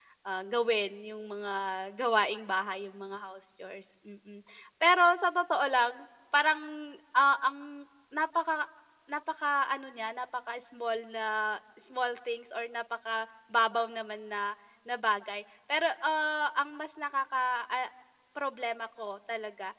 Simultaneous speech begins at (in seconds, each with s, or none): none